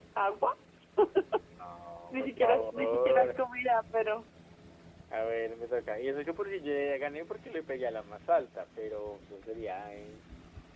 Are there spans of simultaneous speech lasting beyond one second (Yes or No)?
Yes